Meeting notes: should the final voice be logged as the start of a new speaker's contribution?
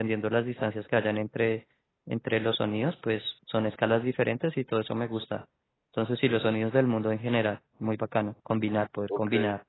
Yes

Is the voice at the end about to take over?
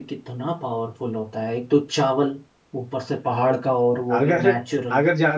Yes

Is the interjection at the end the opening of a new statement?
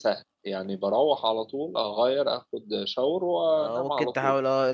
Yes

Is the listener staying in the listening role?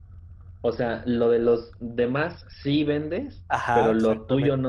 No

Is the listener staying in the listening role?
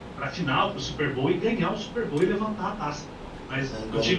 Yes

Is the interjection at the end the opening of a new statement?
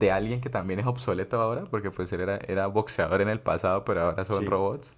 No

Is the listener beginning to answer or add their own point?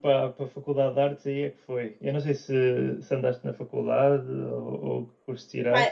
Yes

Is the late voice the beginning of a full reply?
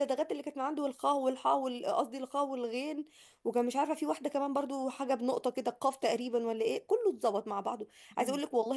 No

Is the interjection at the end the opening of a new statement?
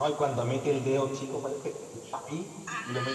No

